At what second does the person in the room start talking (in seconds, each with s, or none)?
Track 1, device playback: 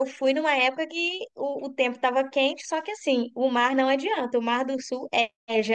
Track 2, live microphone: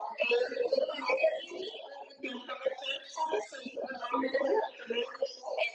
none